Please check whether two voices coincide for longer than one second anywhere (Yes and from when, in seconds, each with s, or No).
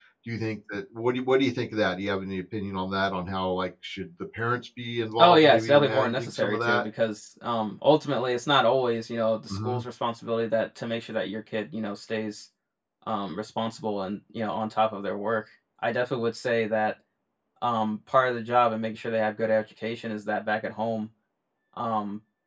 Yes, from 5.2 s